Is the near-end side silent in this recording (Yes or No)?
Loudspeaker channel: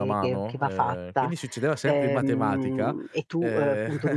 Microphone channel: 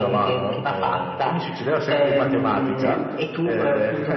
No